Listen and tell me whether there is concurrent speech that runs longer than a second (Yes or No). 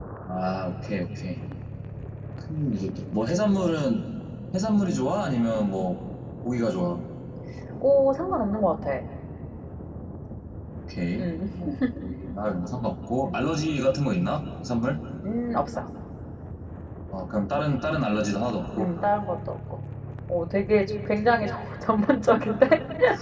No